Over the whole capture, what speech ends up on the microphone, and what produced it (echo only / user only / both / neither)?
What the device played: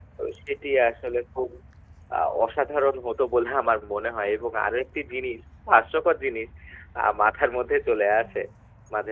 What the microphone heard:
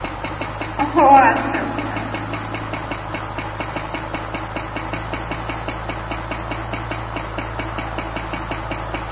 user only